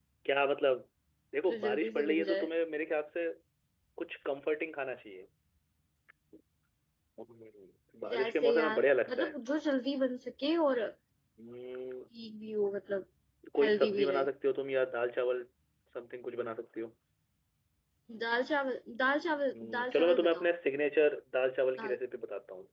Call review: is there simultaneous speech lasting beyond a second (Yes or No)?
Yes